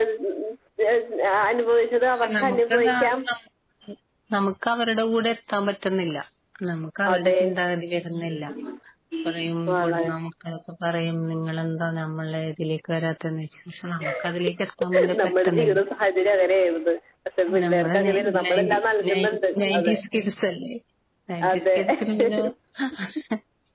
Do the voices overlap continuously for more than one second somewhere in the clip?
Yes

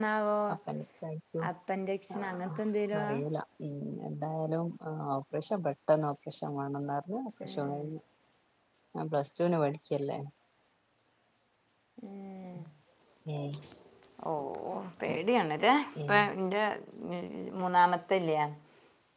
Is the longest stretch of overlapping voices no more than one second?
Yes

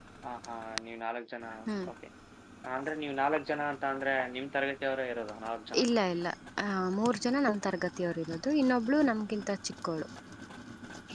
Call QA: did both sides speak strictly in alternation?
Yes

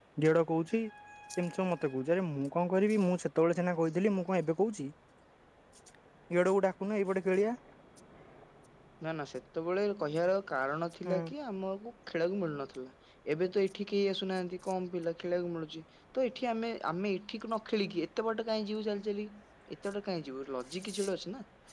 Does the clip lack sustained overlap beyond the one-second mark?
Yes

